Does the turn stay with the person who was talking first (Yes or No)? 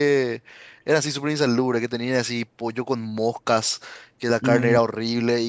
Yes